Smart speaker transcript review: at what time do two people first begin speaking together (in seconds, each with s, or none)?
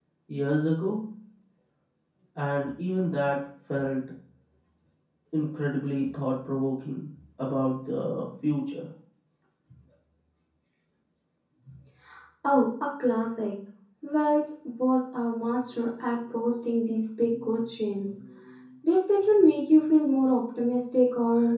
none